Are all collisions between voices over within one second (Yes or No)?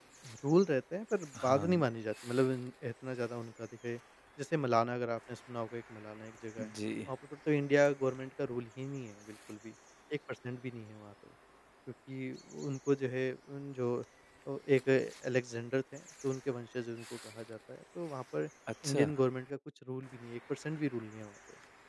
Yes